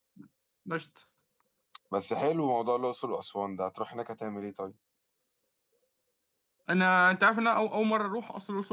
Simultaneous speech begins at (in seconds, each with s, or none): none